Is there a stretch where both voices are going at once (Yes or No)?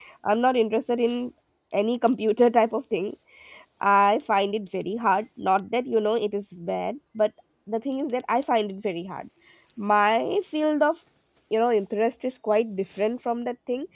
No